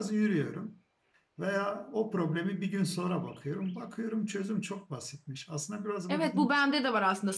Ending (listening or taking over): taking over